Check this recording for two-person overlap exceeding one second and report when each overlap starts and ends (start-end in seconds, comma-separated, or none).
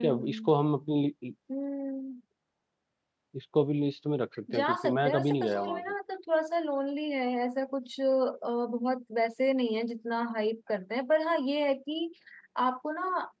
4.5-5.8